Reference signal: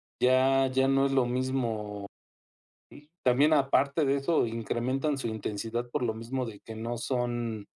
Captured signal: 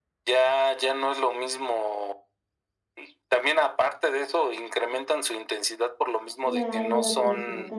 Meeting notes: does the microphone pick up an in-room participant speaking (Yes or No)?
Yes